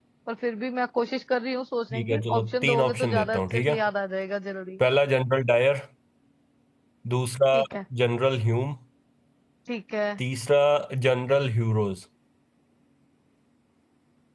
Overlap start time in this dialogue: 1.9 s

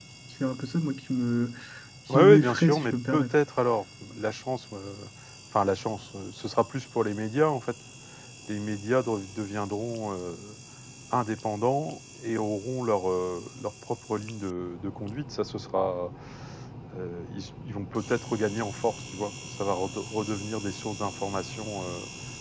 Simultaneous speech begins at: 2.1 s

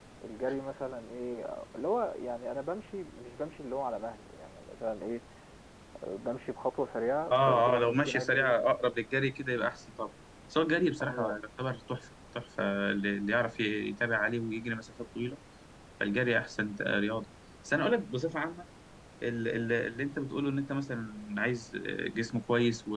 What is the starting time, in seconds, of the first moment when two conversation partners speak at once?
7.3 s

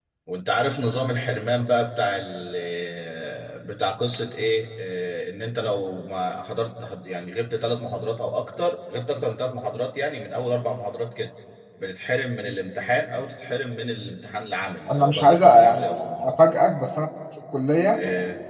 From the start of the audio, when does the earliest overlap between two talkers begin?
14.9 s

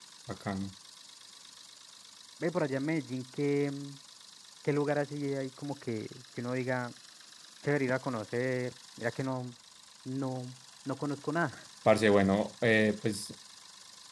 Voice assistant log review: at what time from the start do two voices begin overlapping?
none

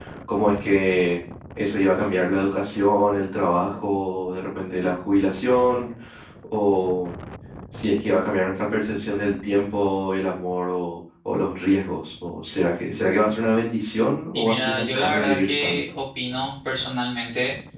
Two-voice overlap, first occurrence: 14.3 s

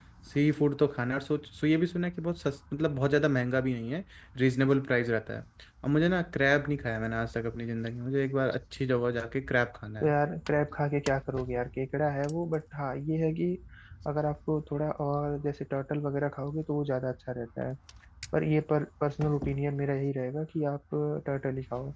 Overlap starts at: none

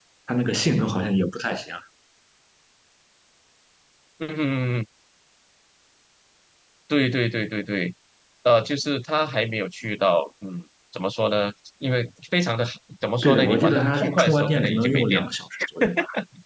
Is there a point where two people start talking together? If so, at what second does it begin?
13.2 s

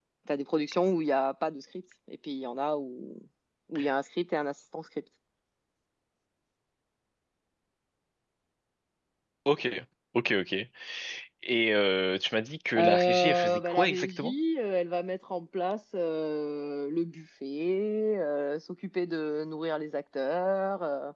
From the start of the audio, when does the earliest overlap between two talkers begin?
12.7 s

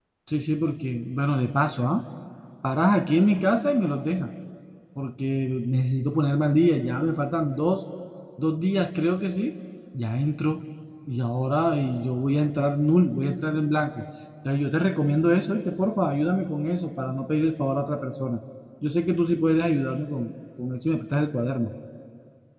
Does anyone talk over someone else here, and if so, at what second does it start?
none

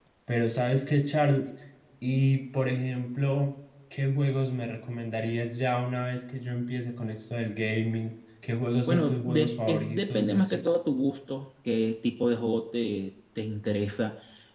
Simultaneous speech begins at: 8.9 s

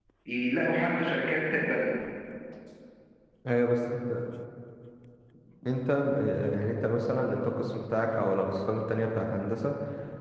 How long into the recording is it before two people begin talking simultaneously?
none

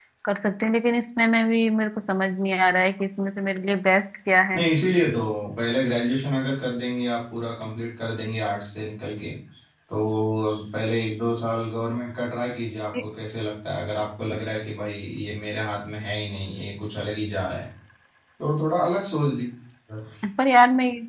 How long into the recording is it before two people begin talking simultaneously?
none

